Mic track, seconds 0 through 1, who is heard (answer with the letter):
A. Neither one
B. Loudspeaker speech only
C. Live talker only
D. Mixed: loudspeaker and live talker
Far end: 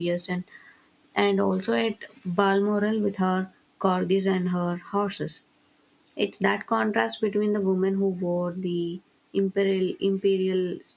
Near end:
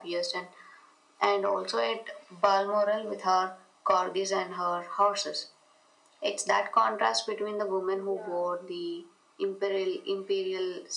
B